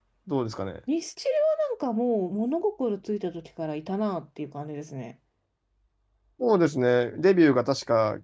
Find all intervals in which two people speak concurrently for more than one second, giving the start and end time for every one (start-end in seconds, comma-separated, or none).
none